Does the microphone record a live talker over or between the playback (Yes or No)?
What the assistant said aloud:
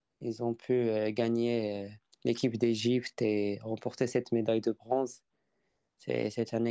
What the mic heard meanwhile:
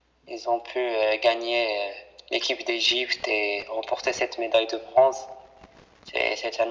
No